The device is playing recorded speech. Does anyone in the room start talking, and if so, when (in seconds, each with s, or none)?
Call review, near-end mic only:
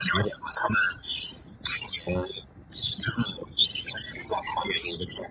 none